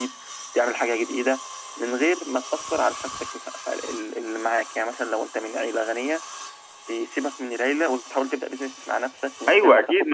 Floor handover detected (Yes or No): Yes